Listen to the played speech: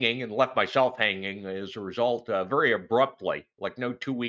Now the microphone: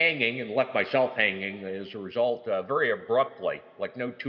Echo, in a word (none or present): present